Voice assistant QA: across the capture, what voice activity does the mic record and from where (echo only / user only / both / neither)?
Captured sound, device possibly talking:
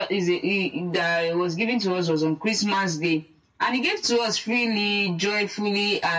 echo only